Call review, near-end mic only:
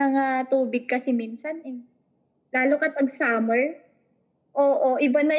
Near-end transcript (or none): none